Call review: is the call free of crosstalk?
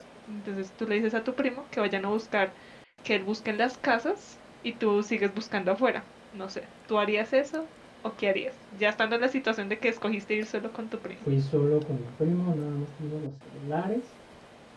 Yes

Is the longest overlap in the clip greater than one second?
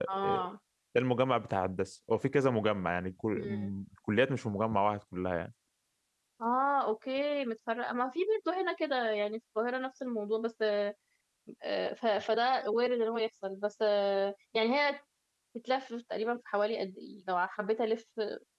No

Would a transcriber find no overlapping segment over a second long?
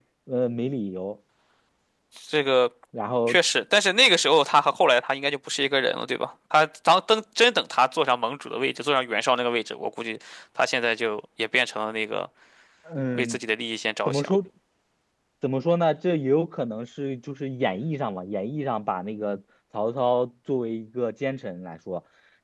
Yes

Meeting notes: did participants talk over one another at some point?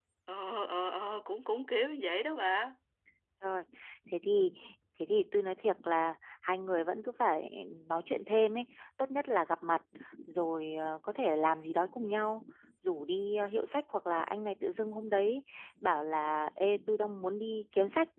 No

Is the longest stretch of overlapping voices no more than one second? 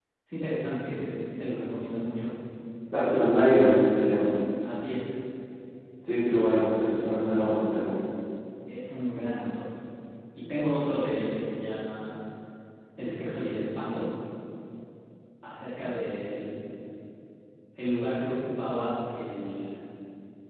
Yes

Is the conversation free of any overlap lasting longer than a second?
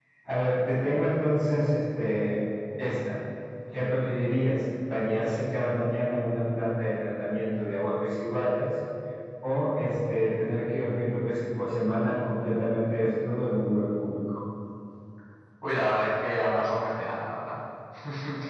Yes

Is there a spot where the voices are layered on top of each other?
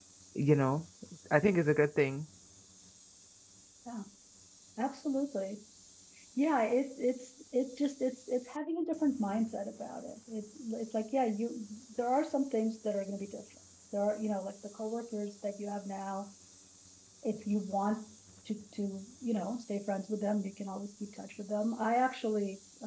No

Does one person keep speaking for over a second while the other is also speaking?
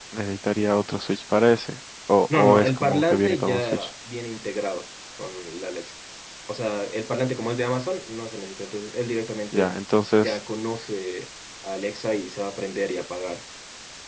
Yes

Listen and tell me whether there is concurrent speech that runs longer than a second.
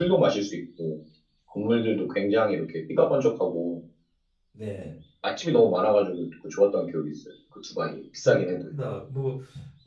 No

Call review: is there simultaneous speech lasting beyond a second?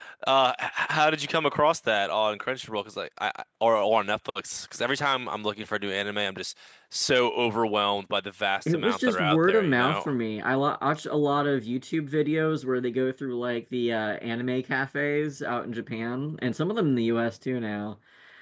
Yes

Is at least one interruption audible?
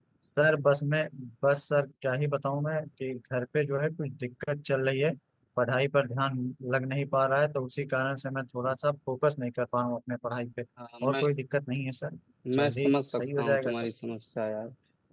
Yes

